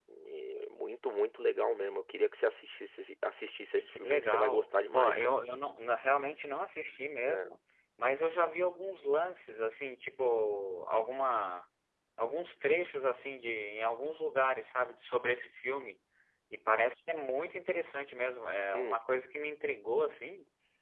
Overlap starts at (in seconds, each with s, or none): 3.8 s